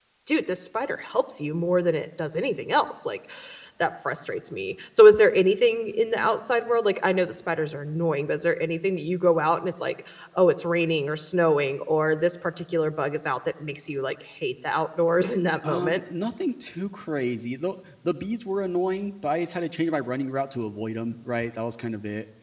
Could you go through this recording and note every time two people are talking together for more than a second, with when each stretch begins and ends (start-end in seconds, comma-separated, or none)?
none